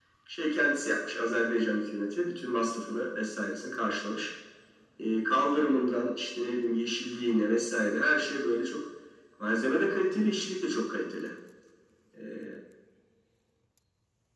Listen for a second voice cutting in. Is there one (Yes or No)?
No